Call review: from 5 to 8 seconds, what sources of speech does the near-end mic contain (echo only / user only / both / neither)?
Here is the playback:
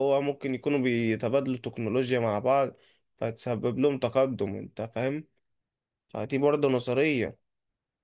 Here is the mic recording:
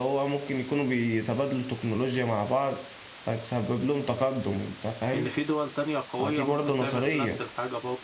both